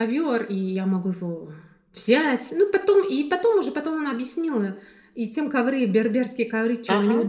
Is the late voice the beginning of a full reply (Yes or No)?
No